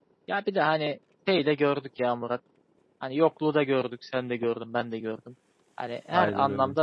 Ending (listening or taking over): listening